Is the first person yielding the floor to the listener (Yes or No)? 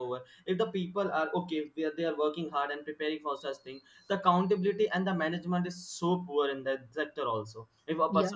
No